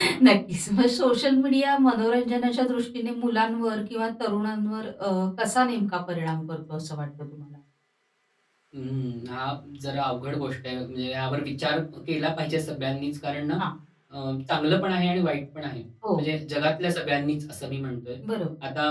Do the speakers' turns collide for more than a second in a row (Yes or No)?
No